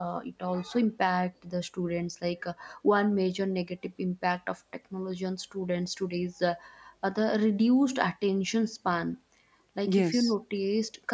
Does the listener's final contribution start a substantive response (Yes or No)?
No